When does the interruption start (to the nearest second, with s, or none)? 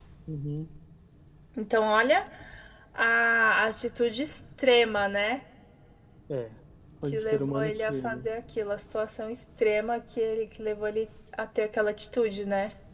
7 s